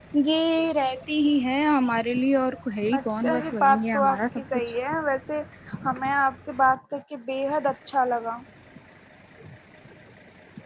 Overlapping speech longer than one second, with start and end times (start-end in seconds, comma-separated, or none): 3.0-4.7